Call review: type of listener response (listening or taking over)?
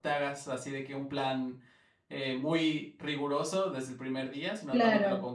listening